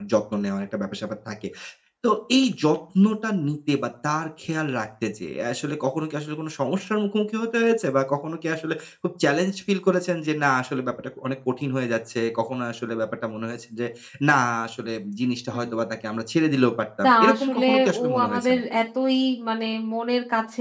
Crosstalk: present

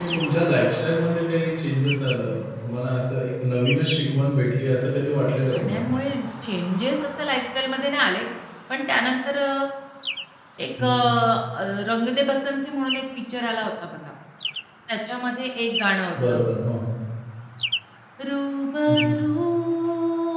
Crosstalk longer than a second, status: none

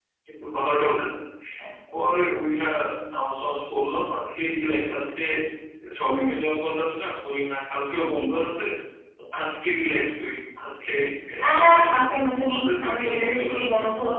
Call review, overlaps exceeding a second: present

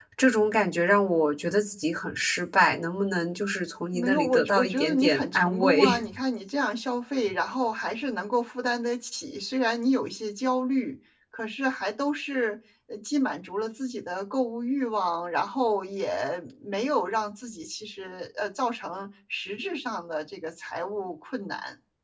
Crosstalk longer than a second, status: present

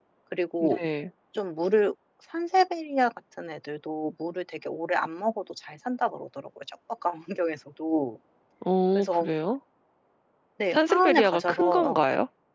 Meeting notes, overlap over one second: present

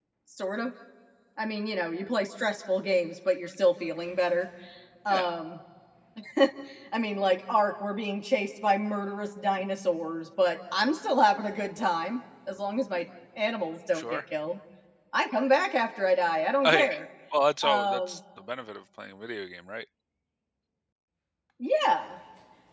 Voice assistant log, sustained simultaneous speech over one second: none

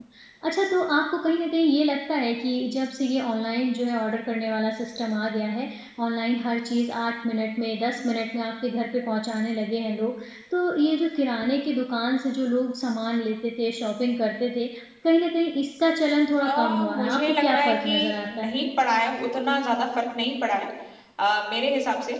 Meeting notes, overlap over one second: present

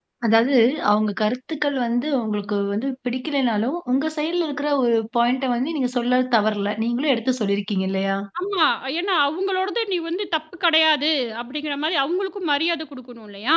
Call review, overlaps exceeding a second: none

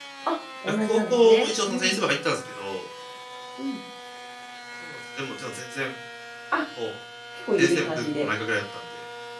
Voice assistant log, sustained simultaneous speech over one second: present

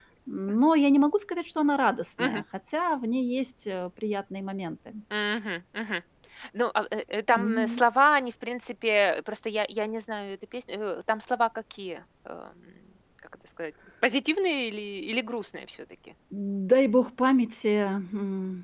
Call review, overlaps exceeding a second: none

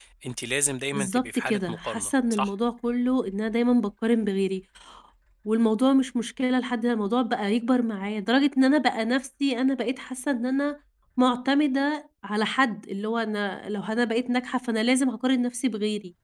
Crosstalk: present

